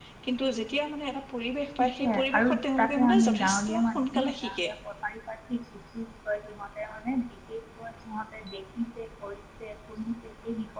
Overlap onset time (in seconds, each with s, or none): 1.8 s